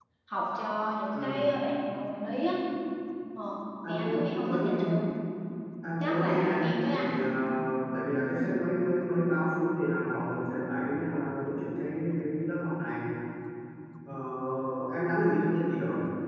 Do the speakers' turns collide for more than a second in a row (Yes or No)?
Yes